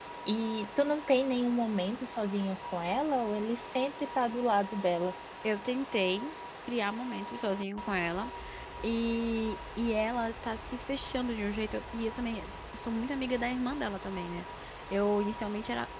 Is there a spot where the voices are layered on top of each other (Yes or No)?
No